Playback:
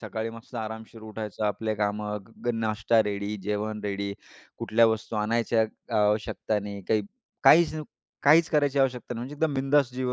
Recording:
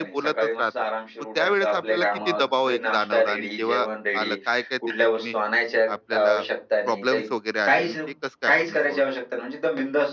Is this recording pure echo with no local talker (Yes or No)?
No